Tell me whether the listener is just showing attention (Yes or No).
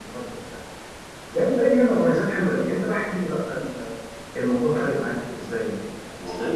No